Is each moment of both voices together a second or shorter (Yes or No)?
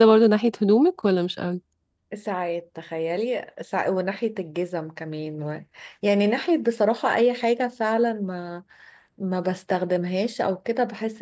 Yes